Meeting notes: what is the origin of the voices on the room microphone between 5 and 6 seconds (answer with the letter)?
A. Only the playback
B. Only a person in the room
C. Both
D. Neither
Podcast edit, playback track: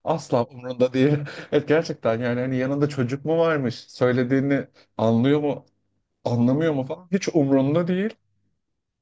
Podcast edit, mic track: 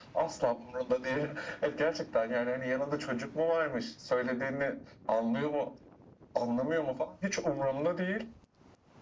A